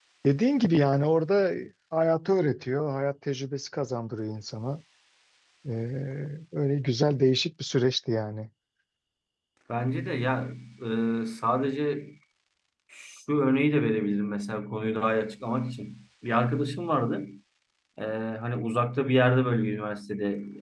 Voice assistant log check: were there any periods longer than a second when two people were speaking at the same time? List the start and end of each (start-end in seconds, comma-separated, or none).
none